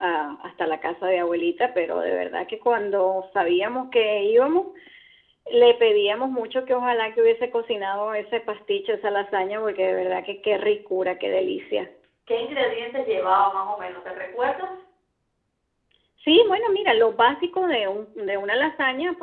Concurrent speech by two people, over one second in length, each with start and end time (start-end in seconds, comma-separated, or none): none